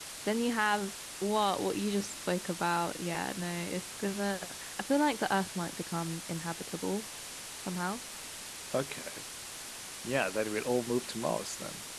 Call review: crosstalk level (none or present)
none